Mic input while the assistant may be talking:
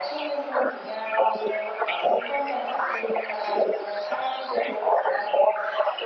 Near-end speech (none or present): none